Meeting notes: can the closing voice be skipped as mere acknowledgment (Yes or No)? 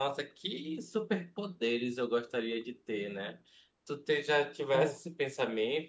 Yes